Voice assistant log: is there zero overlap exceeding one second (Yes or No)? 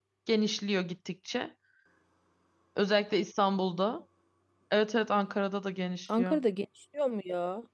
Yes